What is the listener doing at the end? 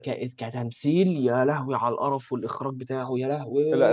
taking over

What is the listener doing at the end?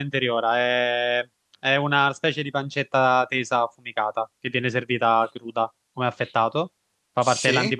listening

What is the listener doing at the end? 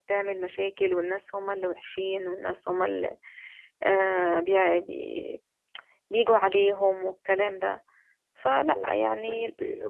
taking over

